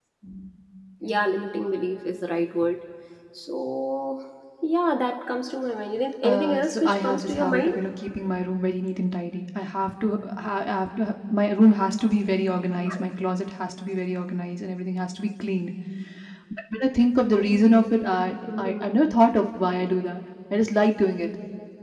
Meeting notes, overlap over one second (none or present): present